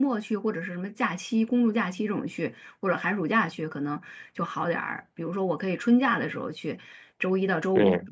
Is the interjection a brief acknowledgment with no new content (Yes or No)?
Yes